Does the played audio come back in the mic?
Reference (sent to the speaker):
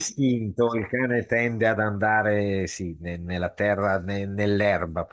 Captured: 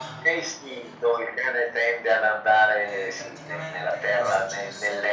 Yes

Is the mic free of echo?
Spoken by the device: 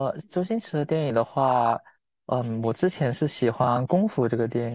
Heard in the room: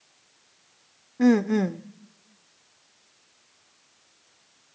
Yes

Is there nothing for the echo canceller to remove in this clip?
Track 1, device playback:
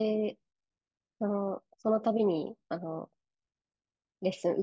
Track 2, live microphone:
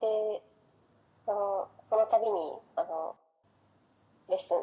No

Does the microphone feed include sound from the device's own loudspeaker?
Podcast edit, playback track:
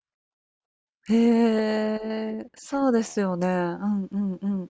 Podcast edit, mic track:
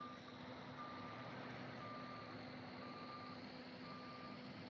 No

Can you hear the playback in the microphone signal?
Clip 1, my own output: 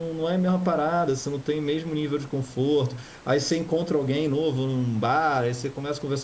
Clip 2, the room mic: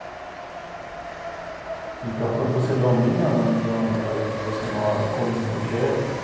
No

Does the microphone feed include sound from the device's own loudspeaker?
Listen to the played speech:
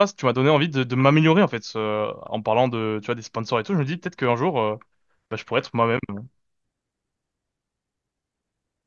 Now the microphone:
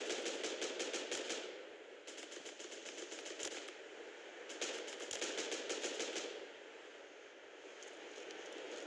No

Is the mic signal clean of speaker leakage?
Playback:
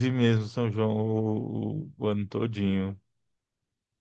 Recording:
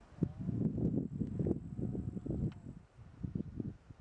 Yes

